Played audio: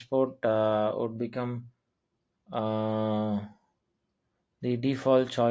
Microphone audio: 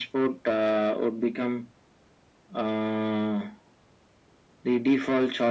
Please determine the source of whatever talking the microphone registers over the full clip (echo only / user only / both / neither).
echo only